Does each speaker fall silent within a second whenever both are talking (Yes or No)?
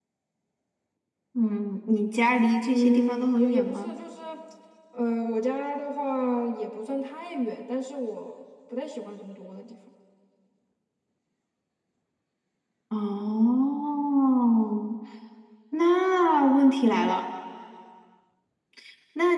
No